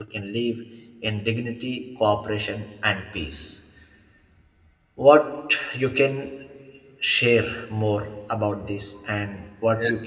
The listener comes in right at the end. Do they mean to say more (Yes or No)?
Yes